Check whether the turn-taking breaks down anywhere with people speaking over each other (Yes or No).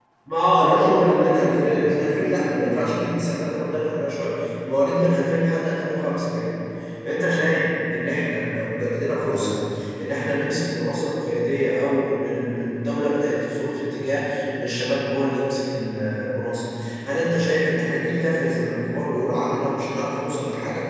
Yes